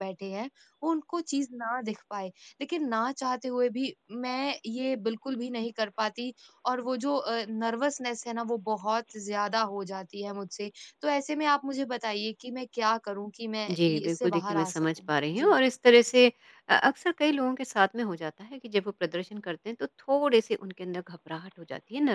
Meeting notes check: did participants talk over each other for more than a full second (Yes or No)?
Yes